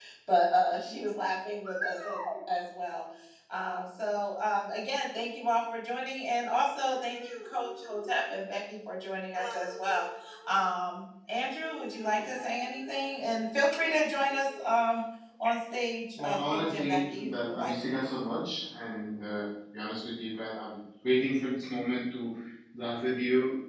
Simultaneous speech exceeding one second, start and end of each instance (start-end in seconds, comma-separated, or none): 16.2-17.9